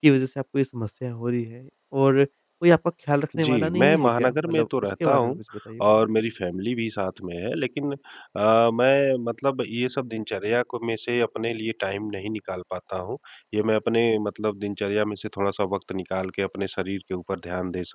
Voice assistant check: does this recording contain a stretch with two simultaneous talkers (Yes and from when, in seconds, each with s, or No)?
Yes, from 3.3 s